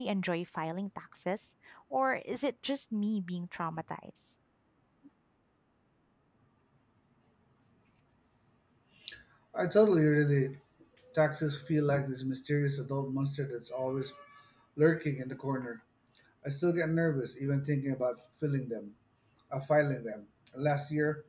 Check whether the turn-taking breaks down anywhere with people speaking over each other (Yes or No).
No